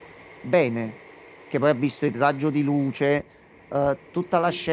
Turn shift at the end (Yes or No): No